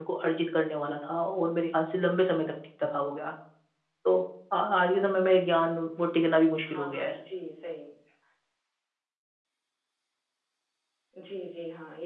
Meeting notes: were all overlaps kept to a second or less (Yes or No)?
Yes